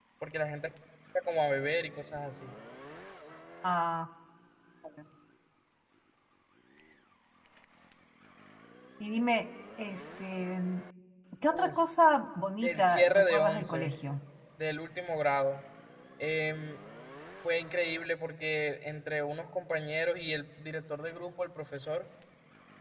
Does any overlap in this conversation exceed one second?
Yes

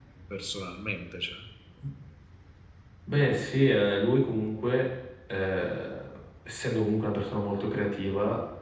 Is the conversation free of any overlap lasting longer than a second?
Yes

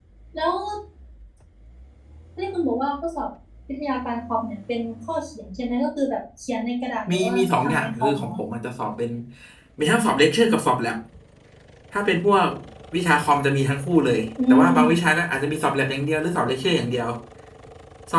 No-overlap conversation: No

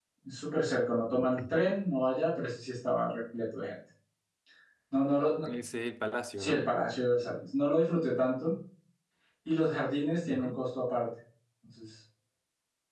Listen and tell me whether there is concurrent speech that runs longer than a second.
No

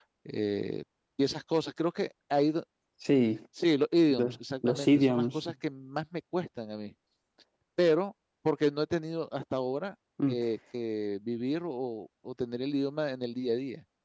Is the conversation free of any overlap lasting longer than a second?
No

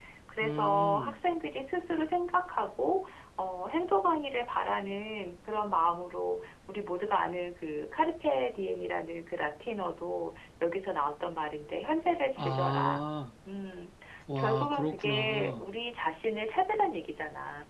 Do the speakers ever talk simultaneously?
Yes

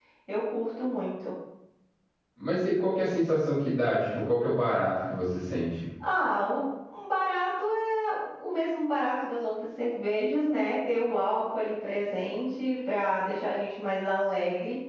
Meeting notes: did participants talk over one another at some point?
No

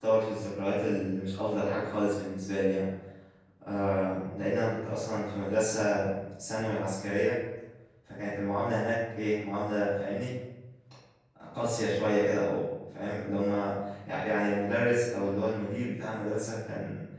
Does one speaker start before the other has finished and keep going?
No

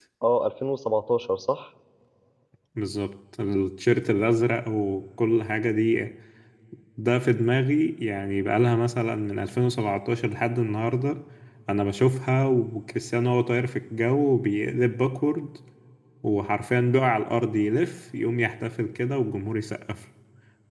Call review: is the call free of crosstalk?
Yes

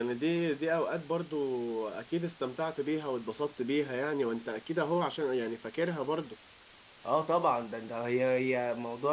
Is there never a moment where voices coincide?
Yes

